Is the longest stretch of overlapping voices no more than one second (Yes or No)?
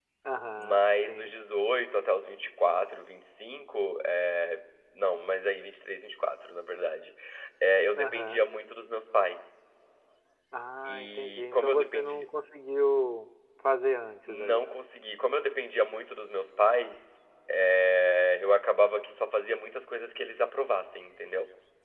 No